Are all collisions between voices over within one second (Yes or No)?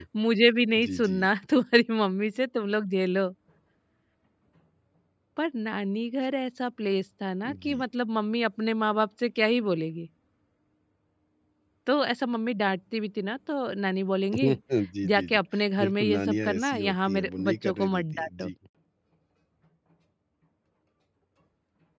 No